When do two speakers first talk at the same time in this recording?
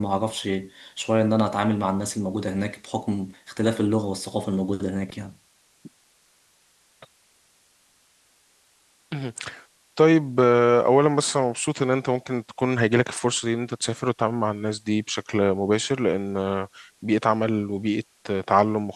none

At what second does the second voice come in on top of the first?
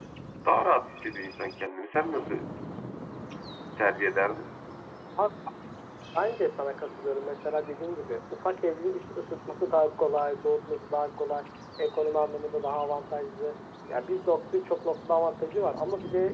none

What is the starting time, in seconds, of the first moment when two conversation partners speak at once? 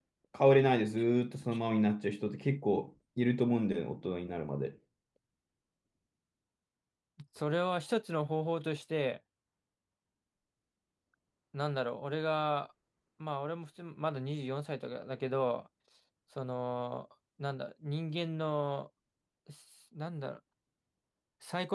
none

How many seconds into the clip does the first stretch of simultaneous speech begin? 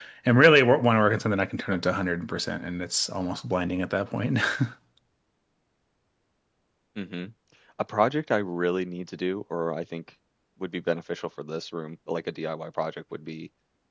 none

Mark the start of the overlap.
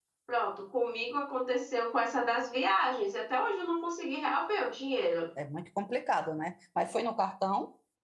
none

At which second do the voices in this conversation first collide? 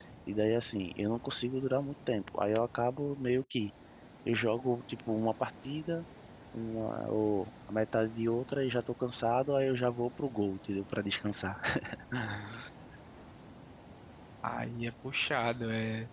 none

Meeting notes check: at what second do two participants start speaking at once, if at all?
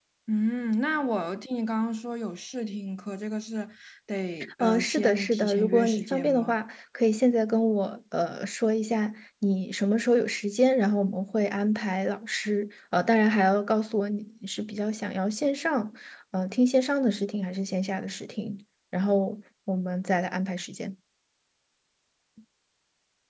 4.6 s

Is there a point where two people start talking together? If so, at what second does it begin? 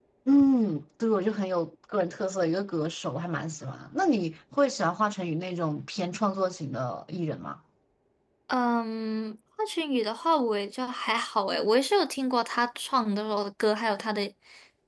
none

